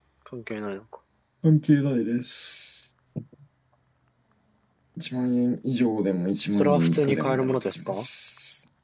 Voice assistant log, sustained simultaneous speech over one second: present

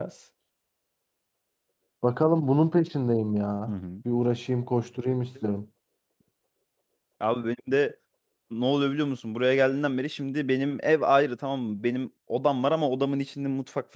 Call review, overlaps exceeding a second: none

